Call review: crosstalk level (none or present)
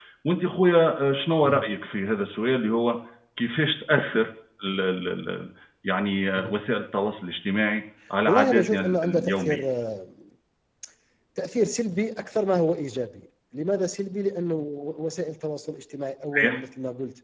present